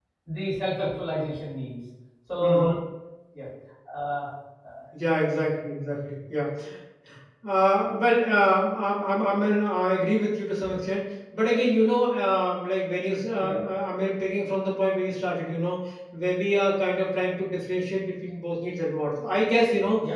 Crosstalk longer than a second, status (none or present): none